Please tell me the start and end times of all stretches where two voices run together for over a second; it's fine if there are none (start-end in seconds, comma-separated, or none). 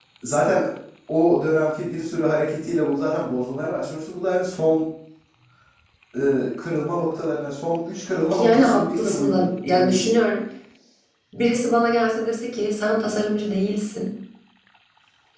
8.3-10.1